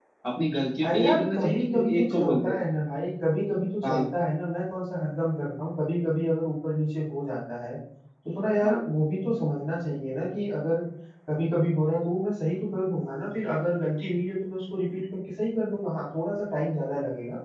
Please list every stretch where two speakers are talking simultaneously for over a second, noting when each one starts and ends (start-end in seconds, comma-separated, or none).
0.9-2.6